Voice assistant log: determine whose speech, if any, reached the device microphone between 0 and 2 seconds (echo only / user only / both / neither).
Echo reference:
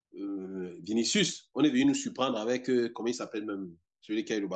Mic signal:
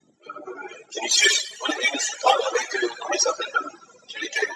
echo only